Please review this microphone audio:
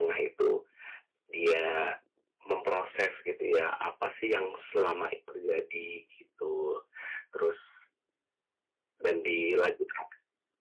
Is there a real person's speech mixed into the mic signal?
No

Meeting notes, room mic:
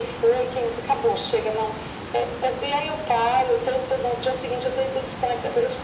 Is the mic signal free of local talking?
Yes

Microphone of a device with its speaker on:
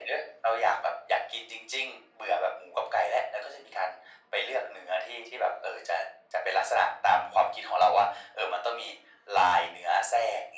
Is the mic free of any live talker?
Yes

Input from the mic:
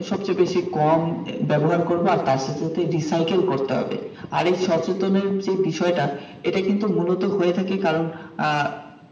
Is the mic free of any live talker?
Yes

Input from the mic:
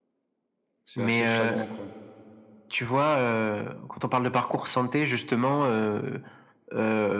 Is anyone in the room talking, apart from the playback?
Yes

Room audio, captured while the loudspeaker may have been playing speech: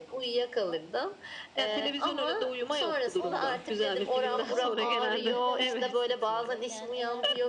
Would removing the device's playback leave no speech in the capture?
No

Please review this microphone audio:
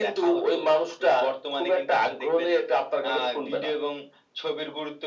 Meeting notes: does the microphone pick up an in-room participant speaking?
No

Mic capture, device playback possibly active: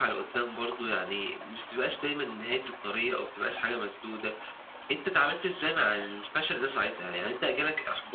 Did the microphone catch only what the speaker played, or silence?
No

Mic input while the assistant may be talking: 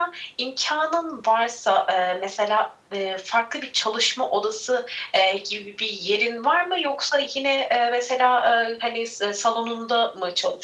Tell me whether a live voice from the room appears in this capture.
No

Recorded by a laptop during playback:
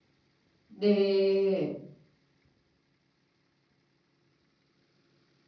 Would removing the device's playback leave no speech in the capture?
No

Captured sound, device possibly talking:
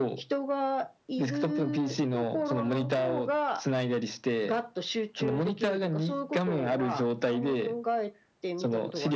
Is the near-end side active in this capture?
No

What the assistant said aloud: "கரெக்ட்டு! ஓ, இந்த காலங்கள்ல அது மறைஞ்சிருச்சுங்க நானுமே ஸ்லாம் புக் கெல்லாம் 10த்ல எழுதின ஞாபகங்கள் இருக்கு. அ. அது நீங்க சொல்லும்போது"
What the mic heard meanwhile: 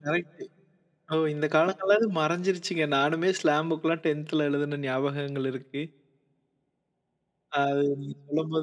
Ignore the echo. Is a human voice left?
No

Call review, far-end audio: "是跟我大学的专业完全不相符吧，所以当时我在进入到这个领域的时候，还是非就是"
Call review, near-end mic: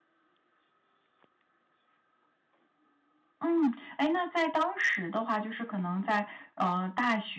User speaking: Yes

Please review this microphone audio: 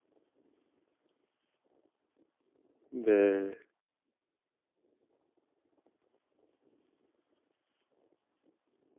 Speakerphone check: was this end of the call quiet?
No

